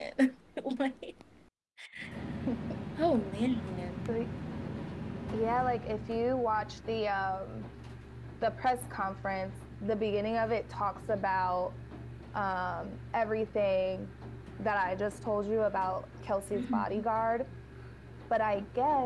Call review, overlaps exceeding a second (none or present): none